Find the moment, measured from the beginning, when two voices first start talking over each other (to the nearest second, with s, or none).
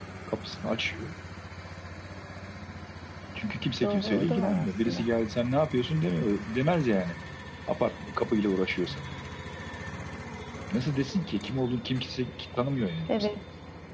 4 s